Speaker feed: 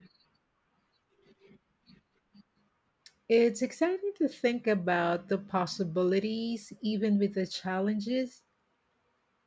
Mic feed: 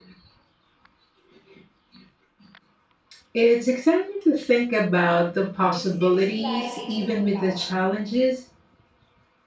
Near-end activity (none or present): present